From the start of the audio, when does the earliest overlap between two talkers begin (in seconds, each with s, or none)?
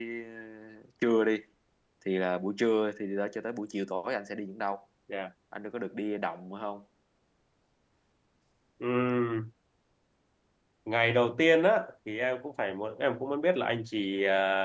none